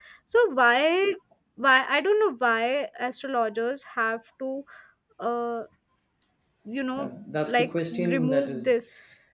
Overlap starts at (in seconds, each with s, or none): 7.5 s